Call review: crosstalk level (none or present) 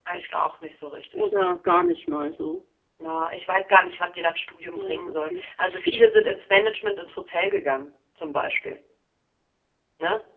present